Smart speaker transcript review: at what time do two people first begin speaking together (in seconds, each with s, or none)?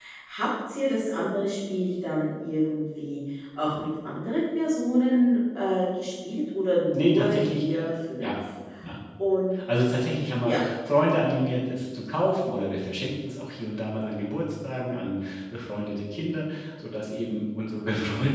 6.9 s